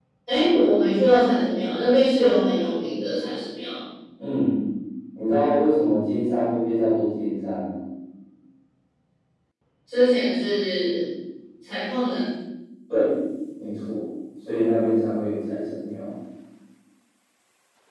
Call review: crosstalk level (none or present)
none